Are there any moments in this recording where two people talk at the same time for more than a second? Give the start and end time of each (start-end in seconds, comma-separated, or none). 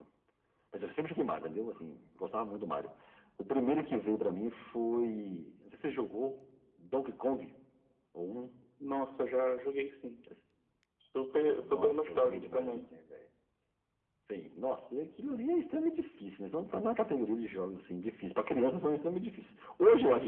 11.6-12.8